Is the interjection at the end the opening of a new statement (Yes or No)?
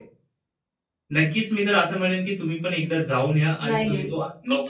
Yes